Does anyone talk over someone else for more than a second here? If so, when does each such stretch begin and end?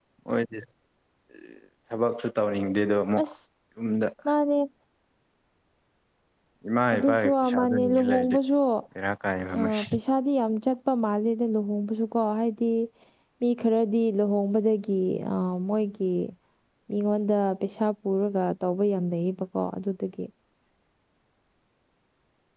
6.9-8.4

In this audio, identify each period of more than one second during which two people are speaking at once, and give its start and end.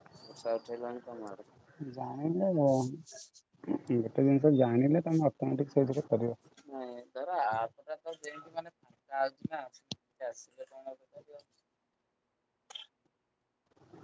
none

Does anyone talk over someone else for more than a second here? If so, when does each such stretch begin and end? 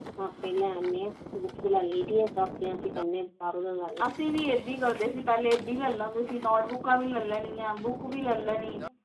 none

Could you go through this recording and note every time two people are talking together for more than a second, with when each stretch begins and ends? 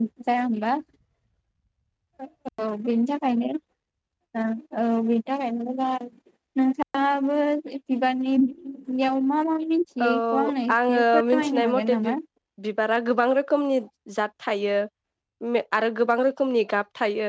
10.9-12.2

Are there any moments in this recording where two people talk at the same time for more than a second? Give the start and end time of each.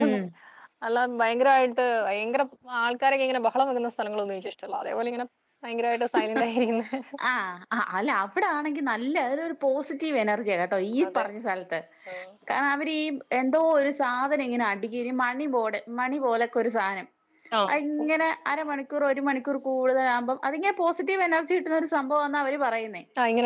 none

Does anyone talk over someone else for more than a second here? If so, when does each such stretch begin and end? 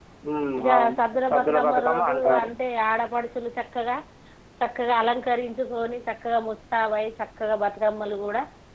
0.6-2.5

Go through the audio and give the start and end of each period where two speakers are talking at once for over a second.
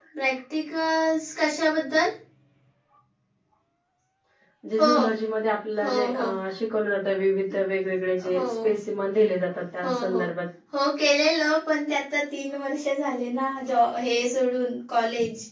none

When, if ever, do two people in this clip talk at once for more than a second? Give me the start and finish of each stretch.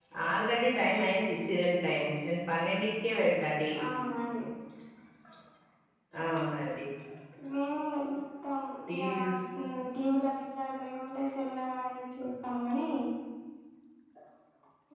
none

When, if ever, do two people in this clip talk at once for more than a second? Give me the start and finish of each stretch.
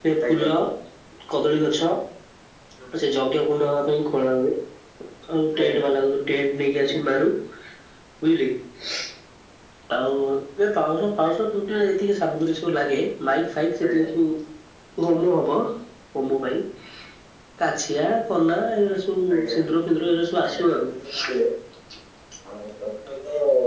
none

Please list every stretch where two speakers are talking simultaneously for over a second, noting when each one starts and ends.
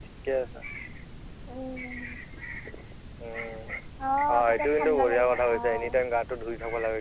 4.3-6.0

